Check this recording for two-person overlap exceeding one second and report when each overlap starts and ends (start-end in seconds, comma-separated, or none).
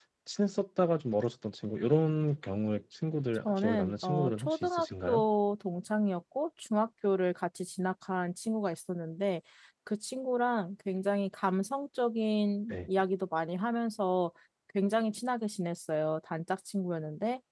3.4-5.2